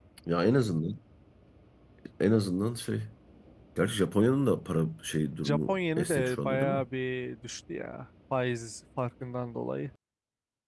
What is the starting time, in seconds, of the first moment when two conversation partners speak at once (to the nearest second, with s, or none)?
5 s